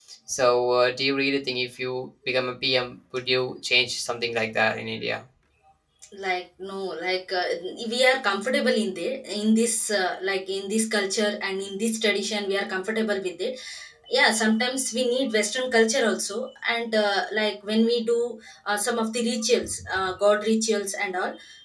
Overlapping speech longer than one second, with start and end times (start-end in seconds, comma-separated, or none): none